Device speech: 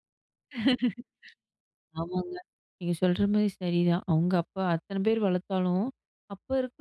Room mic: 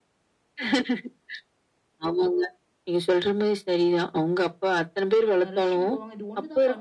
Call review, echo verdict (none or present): present